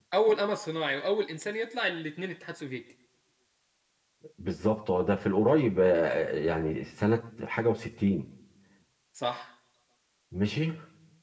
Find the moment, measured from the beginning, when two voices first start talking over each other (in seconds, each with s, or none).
none